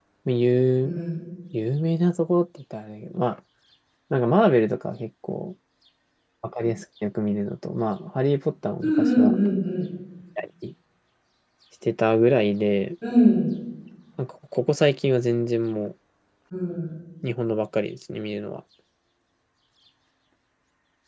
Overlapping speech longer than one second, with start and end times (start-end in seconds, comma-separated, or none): none